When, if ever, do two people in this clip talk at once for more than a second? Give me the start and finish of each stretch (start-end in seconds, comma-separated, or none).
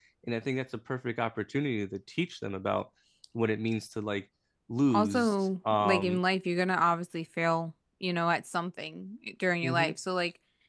4.9-6.2